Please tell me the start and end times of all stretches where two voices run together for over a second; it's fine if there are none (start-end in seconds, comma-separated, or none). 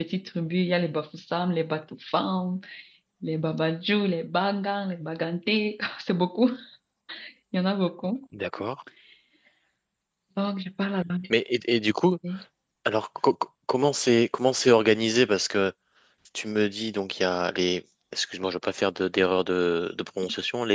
none